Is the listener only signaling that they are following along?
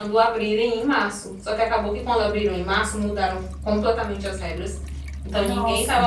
Yes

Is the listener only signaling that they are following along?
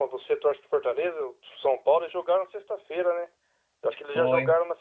Yes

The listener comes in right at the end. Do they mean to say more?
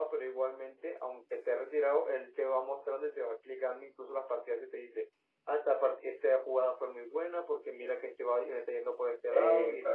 No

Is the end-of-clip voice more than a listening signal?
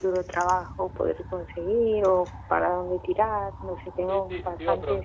Yes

